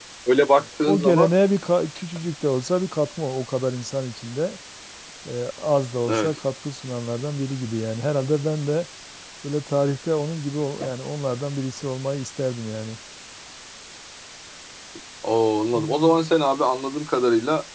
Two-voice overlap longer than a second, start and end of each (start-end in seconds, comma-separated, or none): none